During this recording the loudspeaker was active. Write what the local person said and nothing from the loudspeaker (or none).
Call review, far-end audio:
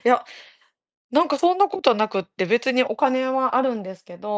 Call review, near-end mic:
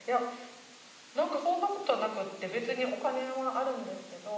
none